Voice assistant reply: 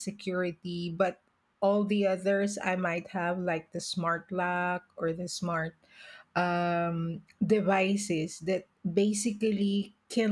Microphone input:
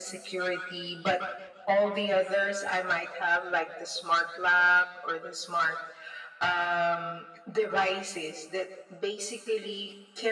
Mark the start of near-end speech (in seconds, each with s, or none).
none